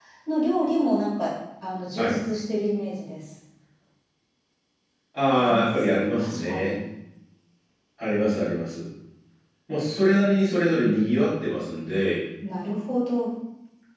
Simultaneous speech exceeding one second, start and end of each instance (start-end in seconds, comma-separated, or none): 5.4-6.8